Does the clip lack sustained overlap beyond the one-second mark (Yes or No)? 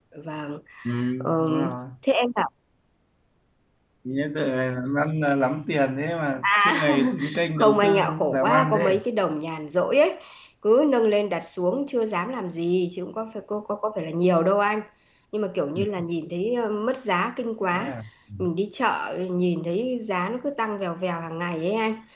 No